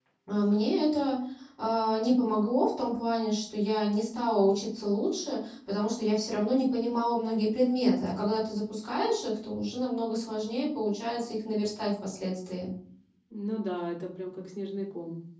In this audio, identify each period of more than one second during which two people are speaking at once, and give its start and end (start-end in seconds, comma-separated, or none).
none